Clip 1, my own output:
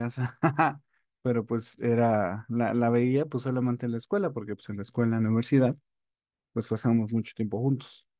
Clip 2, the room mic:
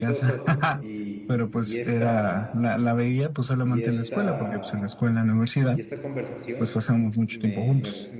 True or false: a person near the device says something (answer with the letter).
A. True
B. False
A